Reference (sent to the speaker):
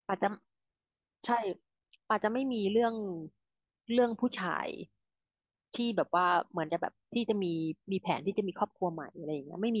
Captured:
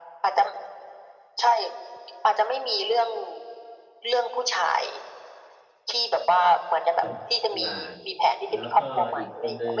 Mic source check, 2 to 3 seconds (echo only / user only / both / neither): echo only